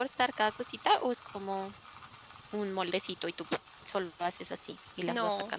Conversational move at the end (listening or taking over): taking over